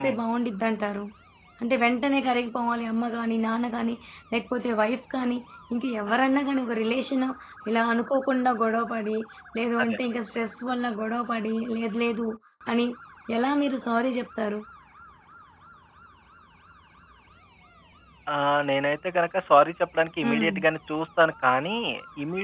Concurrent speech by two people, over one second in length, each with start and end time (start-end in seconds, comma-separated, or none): none